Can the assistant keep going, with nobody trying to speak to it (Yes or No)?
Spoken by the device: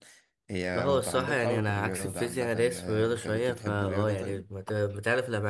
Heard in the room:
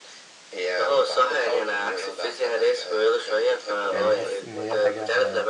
No